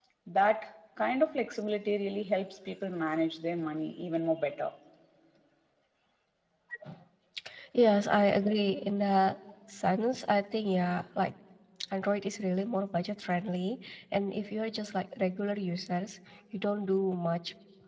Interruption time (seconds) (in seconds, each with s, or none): none